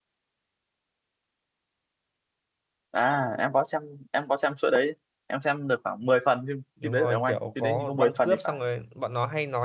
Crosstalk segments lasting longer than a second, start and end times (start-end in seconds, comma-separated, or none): 6.8-8.6